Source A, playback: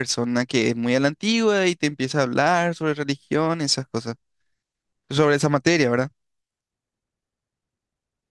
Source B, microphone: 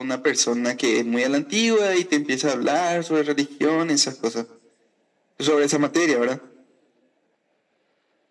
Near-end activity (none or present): none